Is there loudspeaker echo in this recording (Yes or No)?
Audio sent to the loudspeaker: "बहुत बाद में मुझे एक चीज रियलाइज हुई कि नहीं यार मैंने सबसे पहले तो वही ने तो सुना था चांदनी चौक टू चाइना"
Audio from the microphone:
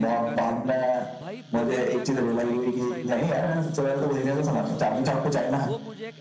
Yes